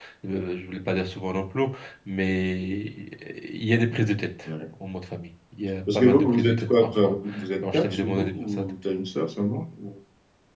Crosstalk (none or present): present